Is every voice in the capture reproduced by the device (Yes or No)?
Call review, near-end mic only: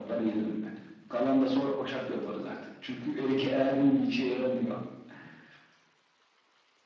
Yes